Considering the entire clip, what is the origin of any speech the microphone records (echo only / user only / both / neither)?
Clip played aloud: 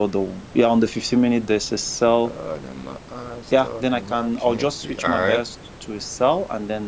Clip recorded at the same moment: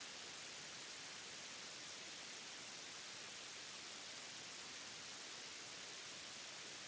neither